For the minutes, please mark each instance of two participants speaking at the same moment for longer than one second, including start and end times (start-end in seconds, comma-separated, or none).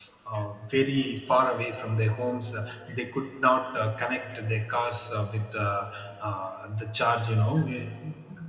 none